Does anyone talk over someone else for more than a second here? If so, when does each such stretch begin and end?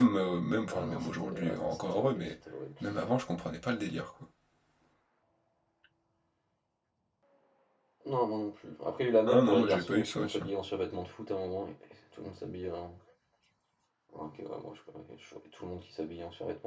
0.7-2.2, 9.3-10.5

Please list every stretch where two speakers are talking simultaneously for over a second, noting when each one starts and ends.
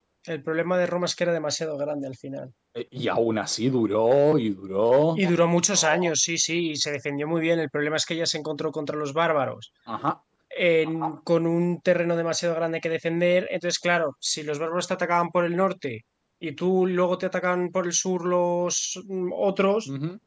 none

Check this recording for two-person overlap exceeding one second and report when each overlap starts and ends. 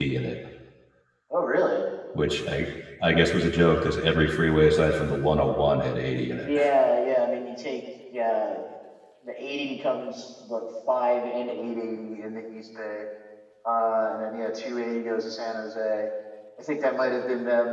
none

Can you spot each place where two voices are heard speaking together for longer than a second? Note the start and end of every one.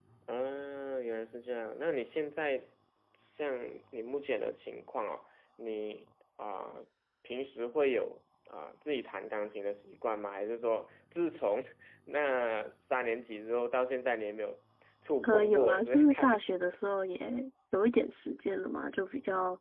15.2-16.6

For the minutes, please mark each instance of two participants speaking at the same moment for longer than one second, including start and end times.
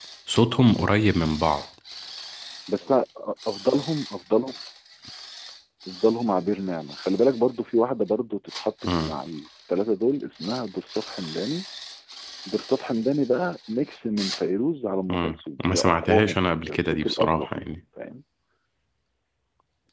15.1-17.8

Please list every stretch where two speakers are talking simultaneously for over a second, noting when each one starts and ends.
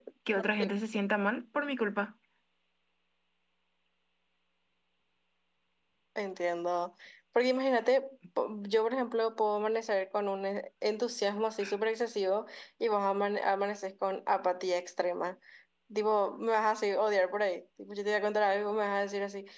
none

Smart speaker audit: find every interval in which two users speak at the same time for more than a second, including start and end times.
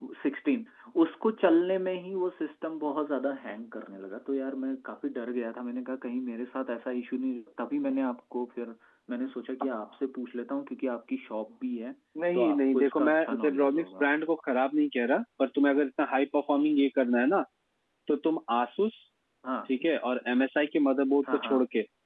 12.3-14.1

